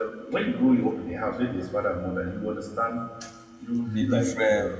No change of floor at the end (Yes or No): Yes